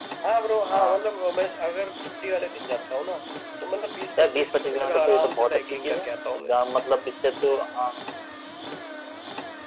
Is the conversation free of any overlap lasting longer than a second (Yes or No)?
No